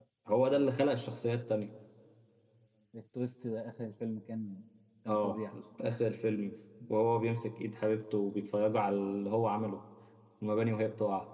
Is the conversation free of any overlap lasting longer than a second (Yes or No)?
Yes